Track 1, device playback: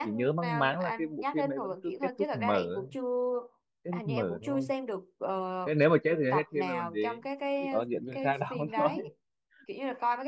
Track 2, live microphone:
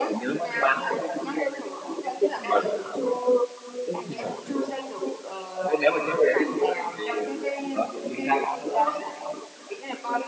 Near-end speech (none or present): none